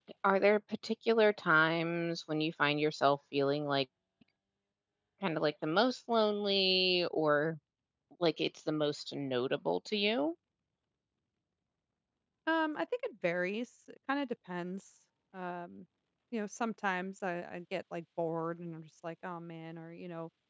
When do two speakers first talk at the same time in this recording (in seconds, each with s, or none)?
none